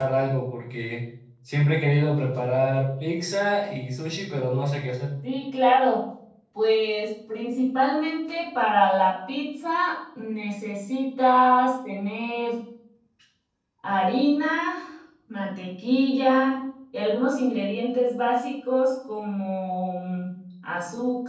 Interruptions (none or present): none